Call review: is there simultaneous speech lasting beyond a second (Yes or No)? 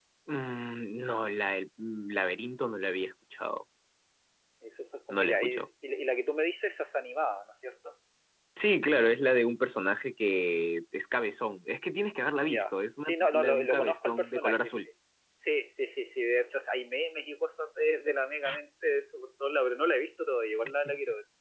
Yes